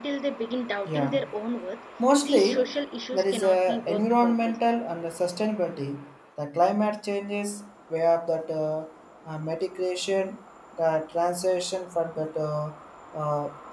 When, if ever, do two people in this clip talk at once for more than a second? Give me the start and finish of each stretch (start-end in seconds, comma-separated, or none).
3.1-4.6